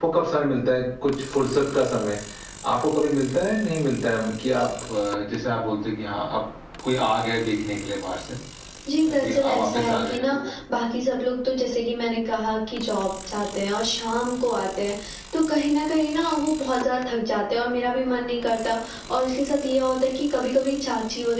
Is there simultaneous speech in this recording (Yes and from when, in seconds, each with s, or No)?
Yes, from 9.0 s